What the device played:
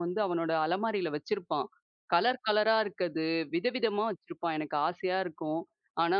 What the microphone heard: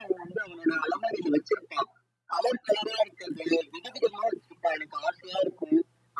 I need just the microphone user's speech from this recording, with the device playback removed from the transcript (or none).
none